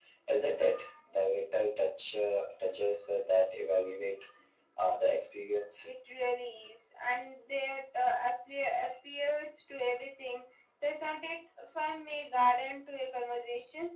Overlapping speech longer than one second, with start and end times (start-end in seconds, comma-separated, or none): none